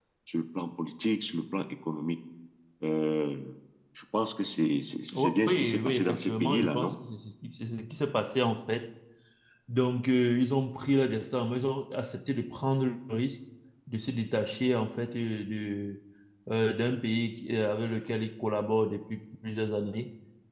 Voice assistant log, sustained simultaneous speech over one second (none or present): present